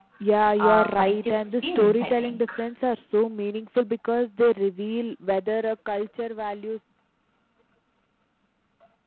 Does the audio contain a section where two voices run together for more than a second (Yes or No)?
Yes